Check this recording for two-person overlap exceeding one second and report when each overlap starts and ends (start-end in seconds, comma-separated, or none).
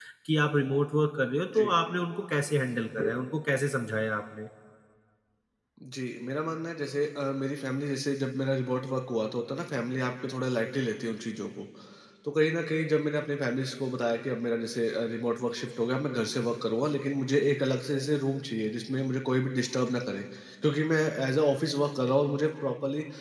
none